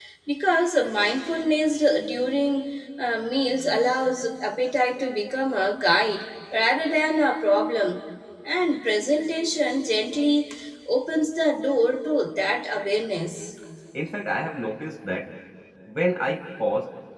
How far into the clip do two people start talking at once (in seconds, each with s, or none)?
none